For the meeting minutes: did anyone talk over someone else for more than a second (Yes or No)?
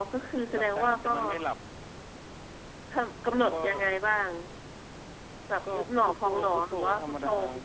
Yes